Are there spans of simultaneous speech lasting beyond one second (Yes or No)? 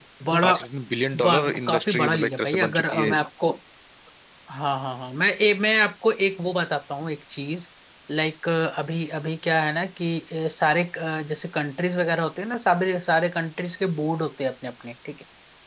Yes